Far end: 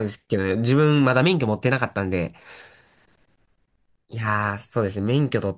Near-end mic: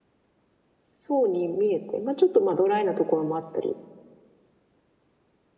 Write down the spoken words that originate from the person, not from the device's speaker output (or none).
そうに見えて、まあちょっとまあドライなところもあったり、